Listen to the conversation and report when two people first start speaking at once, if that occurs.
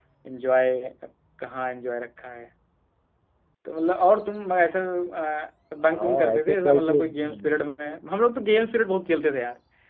5.9 s

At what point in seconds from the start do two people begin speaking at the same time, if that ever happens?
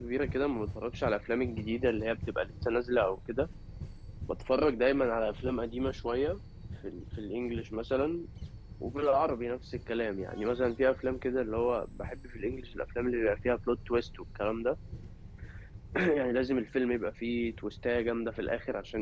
none

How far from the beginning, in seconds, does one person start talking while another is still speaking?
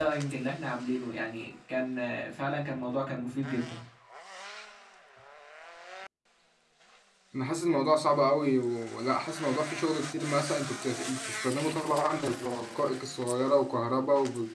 none

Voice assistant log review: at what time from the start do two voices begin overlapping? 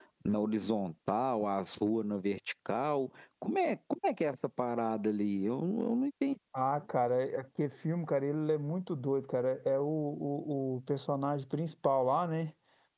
none

